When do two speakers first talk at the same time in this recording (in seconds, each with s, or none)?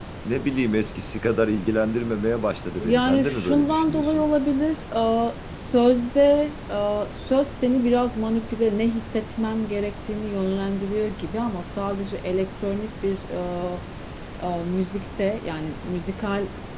2.8 s